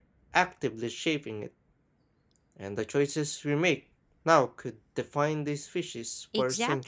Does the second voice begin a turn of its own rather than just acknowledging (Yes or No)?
Yes